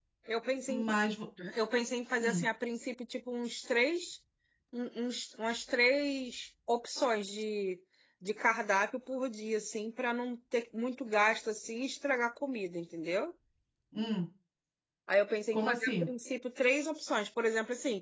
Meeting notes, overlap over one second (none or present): none